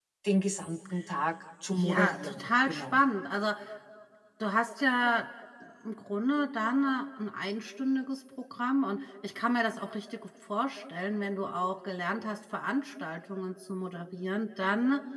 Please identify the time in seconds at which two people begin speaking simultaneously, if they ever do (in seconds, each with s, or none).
1.7 s